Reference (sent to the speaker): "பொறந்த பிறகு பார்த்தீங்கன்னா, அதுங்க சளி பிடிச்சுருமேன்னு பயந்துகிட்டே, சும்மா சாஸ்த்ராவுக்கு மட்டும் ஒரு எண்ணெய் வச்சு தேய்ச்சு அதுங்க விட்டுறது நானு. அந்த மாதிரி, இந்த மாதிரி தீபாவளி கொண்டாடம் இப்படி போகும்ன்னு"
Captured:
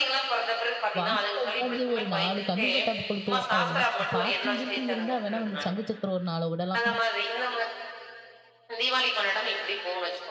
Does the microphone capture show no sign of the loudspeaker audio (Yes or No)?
No